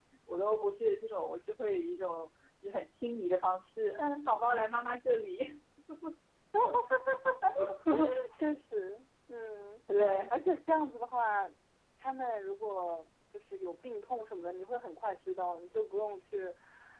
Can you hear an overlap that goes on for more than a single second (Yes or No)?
No